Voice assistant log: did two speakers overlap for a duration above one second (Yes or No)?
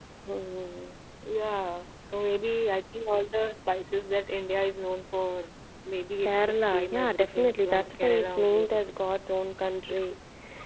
Yes